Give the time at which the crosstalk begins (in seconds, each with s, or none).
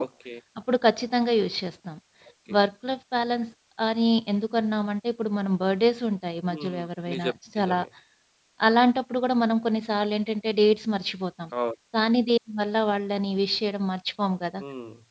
6.5 s